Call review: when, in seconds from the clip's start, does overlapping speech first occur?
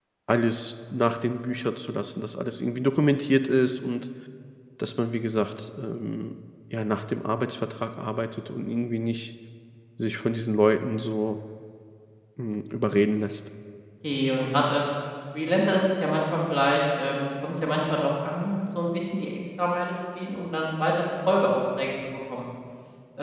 none

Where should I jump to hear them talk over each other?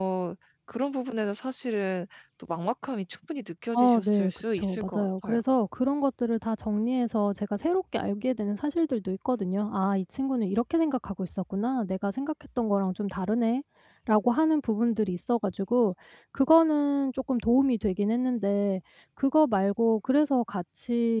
4 s

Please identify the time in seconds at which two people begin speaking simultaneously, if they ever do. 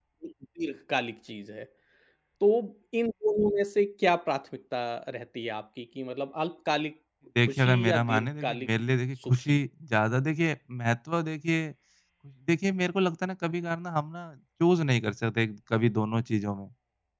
7 s

